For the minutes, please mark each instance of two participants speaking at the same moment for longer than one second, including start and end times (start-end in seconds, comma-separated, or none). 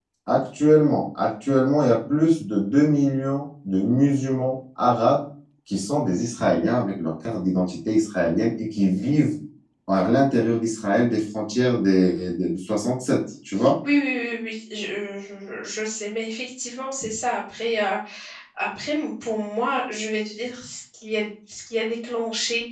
none